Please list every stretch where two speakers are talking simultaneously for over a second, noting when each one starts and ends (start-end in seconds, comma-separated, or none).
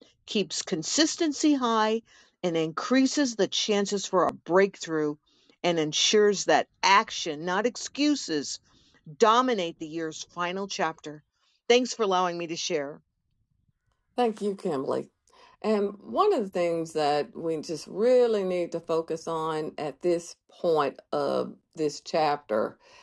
none